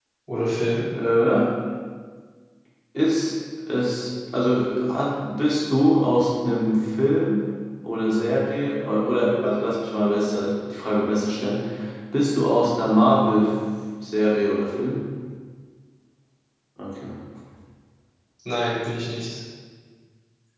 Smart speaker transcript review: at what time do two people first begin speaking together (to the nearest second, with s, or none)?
none